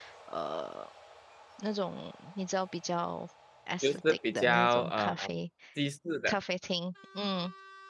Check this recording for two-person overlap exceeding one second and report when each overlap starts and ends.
3.8-5.3

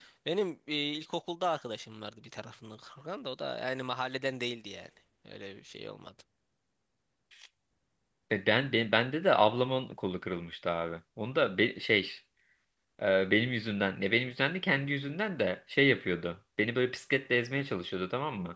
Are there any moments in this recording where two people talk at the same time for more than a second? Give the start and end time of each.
none

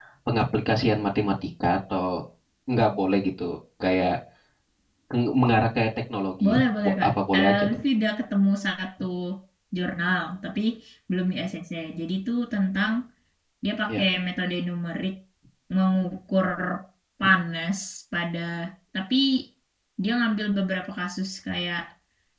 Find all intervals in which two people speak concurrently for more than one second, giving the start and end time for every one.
6.4-7.8

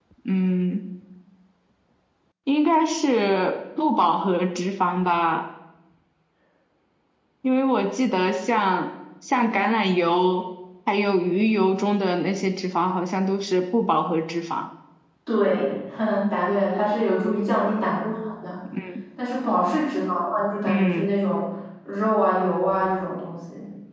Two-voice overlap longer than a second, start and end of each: none

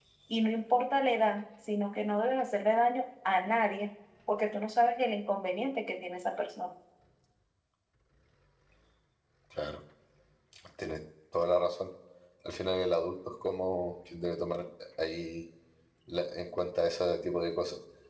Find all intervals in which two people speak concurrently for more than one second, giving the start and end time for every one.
none

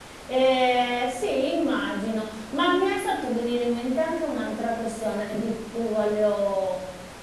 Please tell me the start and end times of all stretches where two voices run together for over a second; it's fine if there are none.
none

